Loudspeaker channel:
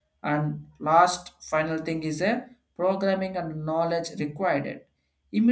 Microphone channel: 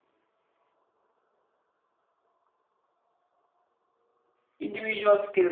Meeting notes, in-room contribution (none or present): present